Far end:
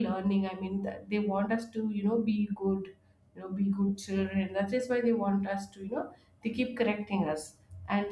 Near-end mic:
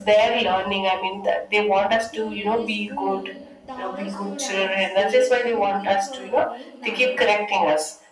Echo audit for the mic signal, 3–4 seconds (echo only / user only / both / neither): both